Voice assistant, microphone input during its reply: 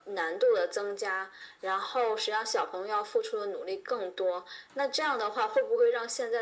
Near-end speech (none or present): none